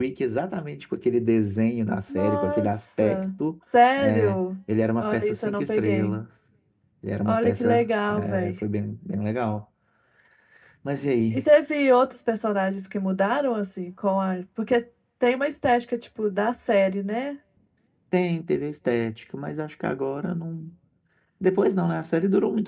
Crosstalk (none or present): present